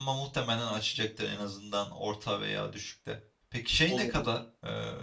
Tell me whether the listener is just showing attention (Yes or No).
Yes